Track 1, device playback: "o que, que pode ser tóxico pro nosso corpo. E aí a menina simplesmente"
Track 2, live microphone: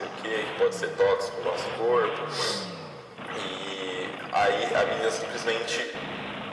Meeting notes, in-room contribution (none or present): none